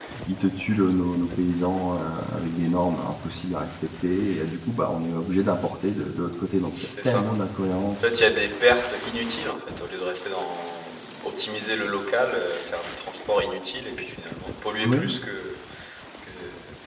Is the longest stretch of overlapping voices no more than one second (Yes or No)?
Yes